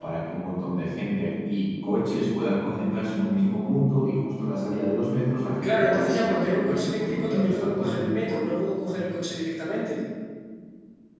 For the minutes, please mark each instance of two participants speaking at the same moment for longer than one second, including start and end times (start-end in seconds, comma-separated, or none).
5.6-7.8